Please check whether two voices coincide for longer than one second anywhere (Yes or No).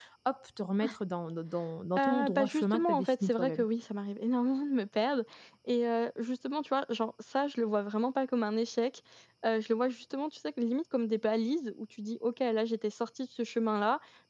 Yes